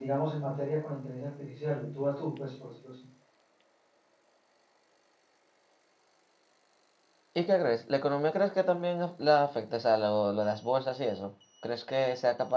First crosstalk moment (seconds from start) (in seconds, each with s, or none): none